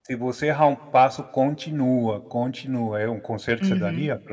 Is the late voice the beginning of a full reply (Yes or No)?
Yes